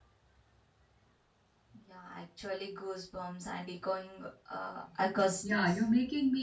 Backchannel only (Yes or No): No